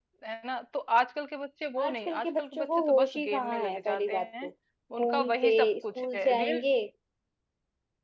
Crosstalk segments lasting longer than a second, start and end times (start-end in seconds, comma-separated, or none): 1.8-4.5, 5.0-6.6